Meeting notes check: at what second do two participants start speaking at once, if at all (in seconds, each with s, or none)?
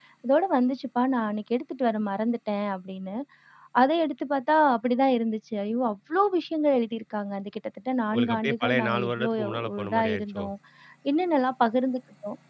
8.1 s